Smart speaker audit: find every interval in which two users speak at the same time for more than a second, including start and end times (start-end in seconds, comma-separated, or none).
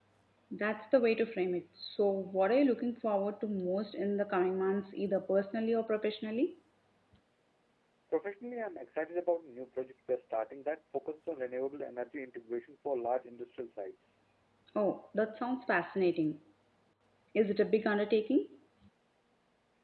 none